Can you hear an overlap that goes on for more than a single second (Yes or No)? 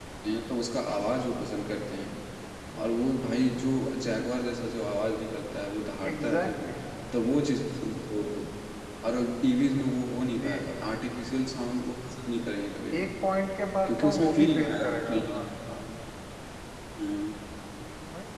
Yes